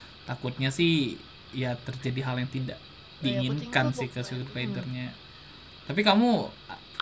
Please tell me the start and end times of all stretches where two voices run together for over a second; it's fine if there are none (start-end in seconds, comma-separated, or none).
3.2-4.8